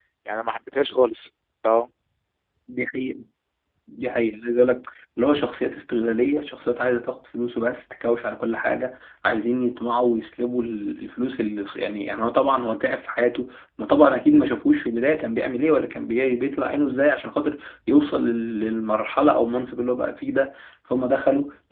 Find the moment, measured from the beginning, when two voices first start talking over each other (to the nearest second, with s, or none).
none